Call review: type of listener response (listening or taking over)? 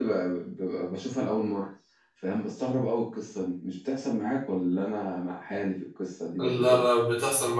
taking over